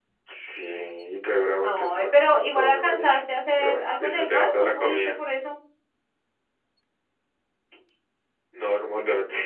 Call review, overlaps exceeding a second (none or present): present